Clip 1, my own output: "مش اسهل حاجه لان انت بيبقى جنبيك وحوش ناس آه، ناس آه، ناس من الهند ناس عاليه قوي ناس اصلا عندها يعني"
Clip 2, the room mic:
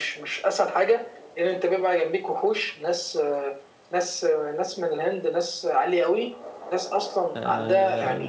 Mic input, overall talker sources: both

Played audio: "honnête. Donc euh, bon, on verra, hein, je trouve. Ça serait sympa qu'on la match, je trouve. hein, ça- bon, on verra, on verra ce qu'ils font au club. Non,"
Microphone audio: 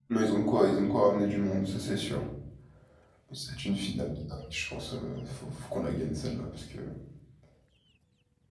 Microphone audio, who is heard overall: user only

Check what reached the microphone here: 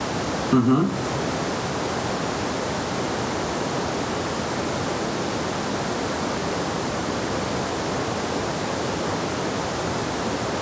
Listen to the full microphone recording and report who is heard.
user only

